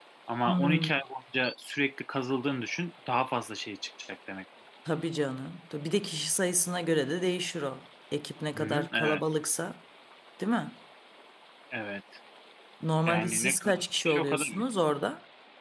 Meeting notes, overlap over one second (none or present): present